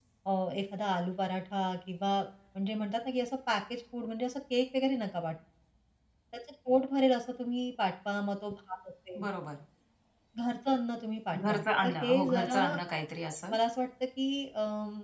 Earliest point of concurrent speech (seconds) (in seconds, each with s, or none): 11.3 s